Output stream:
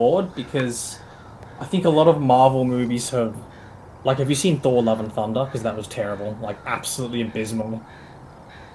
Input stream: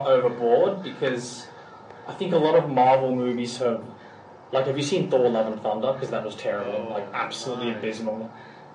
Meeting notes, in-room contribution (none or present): present